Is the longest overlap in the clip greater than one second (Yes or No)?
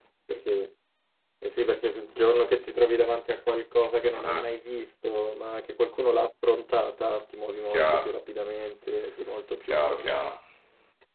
No